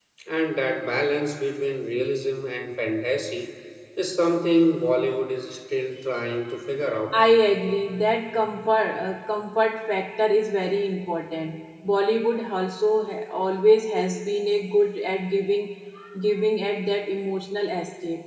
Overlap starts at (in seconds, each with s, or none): none